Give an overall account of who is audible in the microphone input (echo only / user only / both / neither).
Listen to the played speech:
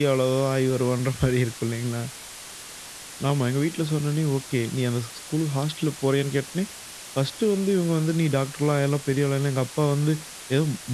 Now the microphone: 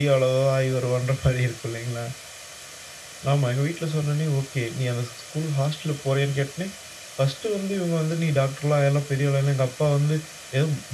echo only